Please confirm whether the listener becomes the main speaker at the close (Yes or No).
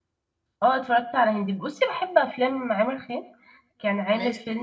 No